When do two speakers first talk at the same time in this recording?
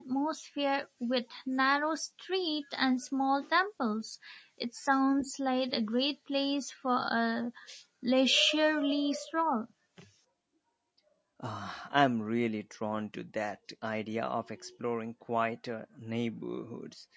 none

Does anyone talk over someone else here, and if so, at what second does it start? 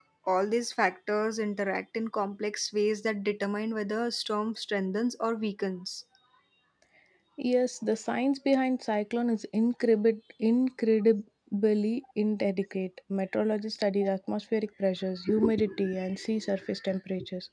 none

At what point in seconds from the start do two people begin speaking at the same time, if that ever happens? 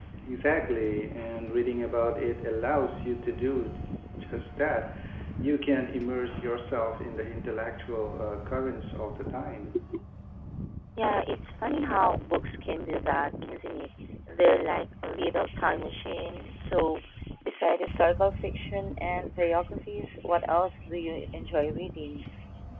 none

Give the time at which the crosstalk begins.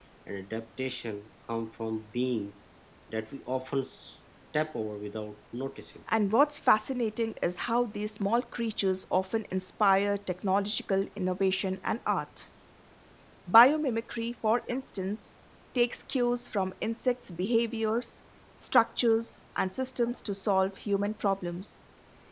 none

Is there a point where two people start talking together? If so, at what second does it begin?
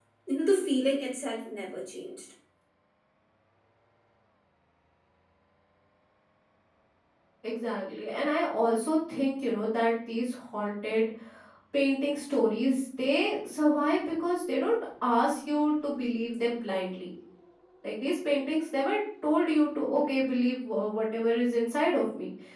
none

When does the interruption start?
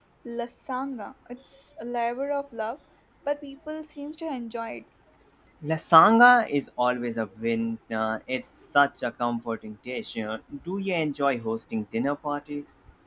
none

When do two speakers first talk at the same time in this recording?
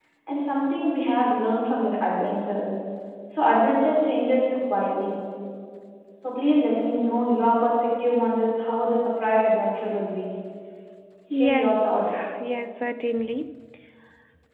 11.3 s

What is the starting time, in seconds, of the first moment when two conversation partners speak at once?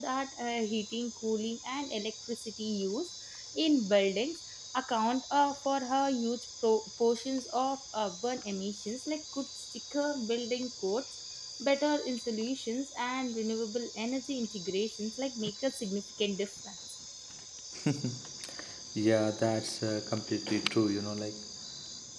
none

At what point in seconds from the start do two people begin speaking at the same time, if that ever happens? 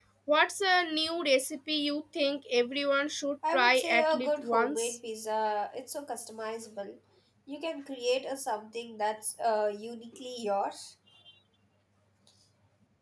3.4 s

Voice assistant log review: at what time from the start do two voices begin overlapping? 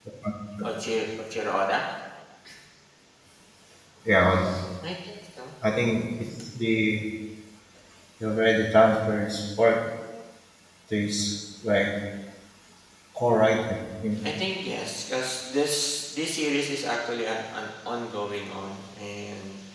none

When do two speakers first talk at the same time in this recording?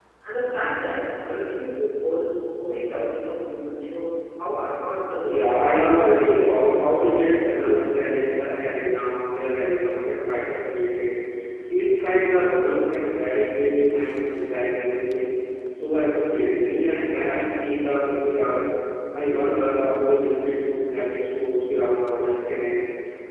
5.2 s

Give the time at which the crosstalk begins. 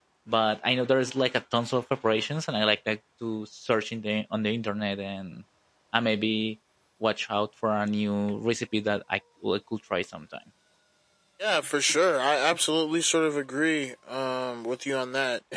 none

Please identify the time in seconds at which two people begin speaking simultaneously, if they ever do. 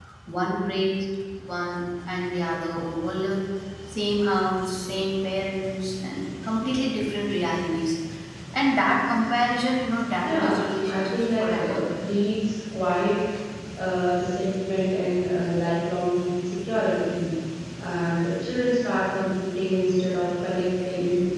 10.2 s

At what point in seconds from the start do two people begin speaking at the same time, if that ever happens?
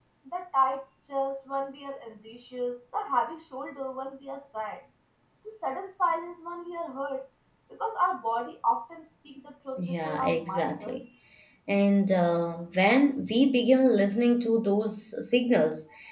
9.8 s

